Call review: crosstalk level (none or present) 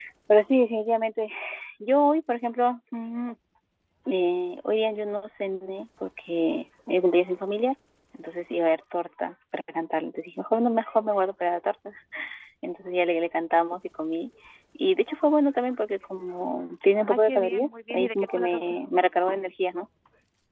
present